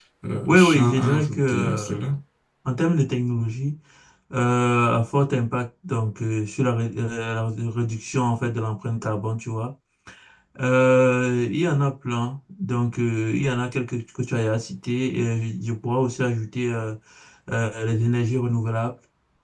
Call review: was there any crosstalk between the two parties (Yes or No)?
Yes